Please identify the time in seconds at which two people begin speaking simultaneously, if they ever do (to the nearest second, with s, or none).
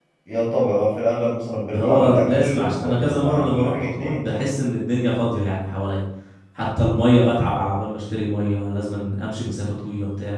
2 s